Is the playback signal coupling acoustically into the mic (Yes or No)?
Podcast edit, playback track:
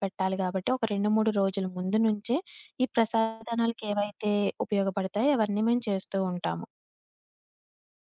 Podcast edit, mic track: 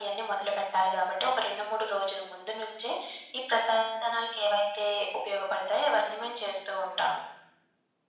Yes